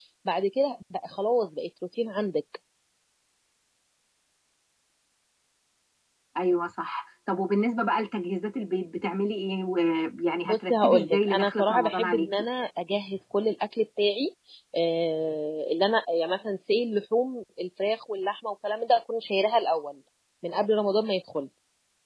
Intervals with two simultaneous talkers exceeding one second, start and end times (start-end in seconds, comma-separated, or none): 10.4-12.4